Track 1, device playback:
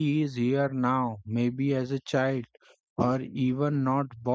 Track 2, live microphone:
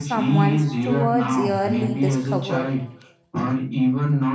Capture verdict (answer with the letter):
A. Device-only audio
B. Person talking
B